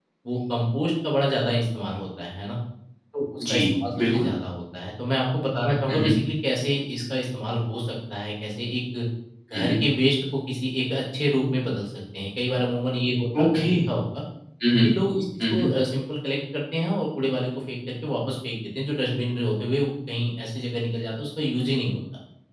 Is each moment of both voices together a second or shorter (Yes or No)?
Yes